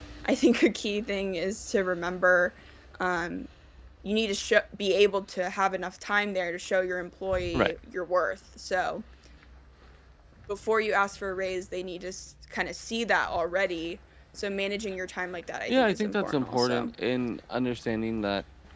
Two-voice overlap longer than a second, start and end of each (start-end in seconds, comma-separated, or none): 15.7-16.9